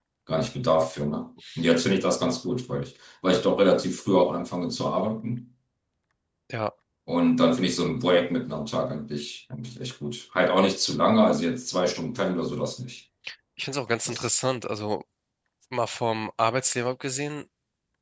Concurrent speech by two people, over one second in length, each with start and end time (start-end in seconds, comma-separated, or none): none